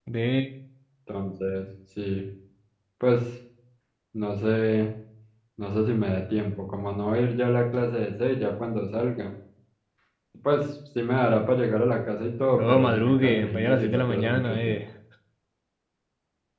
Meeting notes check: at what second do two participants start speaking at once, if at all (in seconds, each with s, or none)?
12.5 s